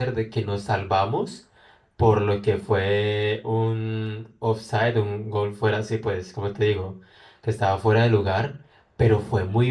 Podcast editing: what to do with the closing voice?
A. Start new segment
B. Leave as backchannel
B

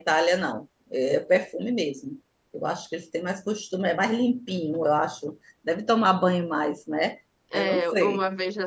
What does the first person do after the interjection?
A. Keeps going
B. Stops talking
B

